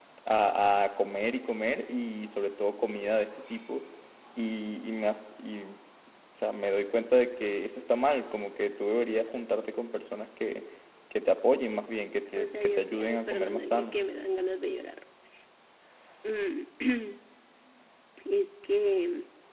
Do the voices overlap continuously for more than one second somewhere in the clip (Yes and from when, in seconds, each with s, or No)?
Yes, from 12.3 s